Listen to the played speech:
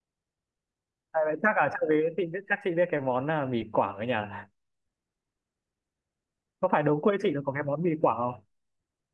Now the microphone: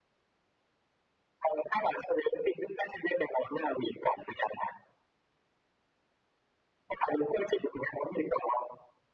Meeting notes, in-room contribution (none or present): none